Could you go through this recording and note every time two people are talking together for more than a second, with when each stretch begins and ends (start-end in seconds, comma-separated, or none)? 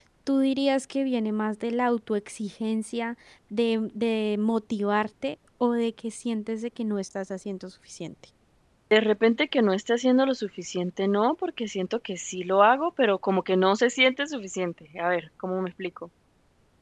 none